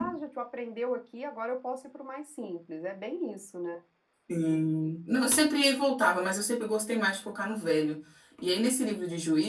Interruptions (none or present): none